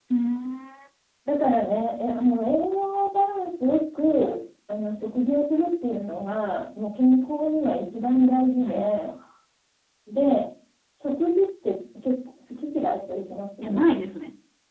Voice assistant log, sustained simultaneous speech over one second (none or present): none